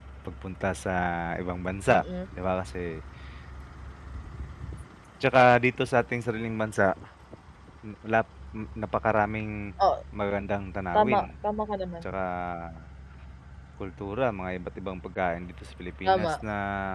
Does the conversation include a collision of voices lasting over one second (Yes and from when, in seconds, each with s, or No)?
No